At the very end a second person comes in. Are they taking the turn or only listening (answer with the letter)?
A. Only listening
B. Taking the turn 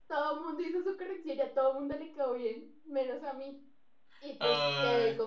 A